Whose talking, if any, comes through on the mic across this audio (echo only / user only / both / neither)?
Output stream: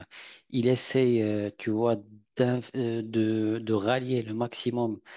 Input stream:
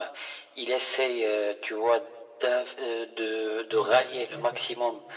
both